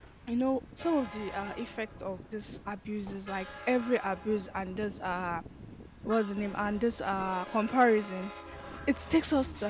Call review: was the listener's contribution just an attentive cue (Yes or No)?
Yes